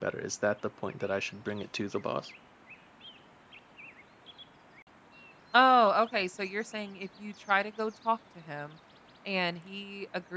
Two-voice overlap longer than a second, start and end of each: none

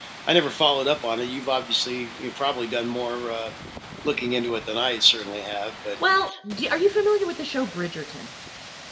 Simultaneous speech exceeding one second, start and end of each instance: none

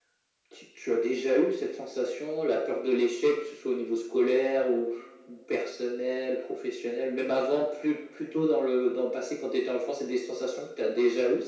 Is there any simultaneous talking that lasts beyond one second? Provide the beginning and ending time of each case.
none

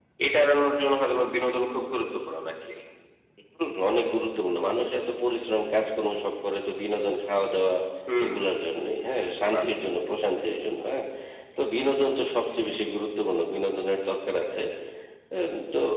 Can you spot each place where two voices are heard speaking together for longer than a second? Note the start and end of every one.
none

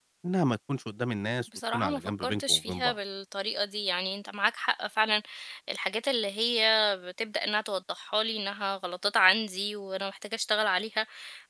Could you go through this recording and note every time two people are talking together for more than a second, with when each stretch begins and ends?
1.7-3.0

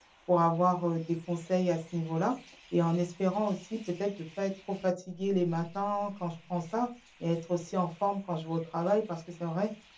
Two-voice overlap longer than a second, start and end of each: none

